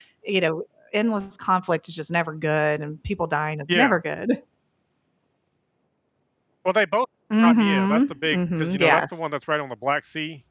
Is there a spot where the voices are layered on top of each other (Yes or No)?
Yes